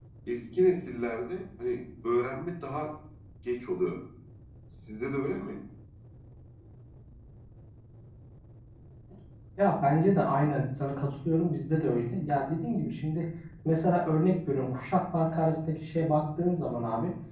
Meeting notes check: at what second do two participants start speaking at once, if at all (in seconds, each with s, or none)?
none